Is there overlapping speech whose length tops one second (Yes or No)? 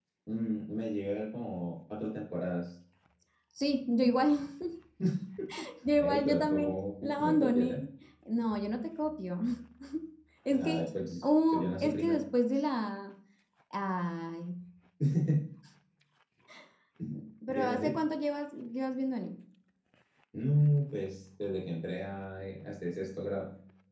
Yes